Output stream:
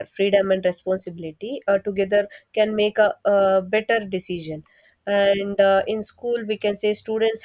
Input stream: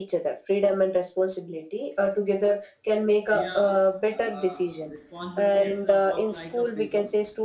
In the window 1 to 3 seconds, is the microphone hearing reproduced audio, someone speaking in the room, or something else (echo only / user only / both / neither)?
echo only